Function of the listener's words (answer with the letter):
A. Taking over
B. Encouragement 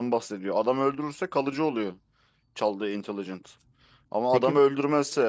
B